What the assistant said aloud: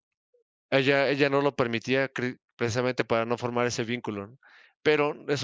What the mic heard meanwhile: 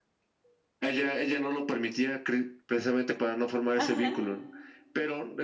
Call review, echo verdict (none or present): present